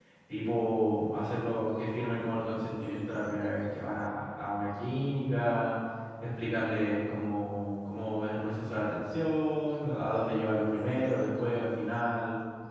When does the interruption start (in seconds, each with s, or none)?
none